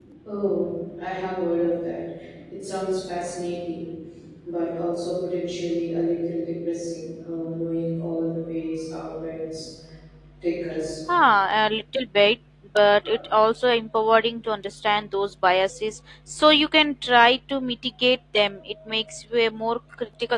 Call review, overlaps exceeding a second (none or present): none